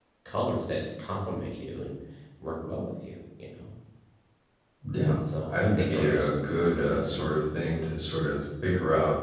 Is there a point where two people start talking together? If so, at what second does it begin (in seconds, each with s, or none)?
5.5 s